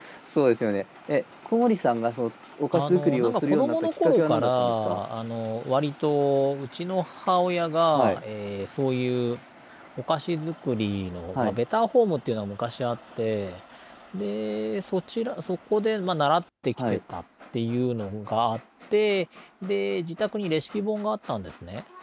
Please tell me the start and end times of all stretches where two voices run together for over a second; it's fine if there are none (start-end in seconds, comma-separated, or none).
2.7-5.0